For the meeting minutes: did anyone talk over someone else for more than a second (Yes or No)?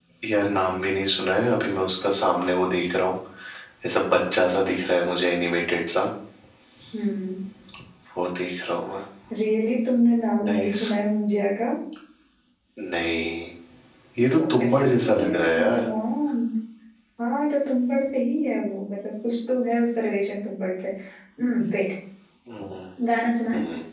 Yes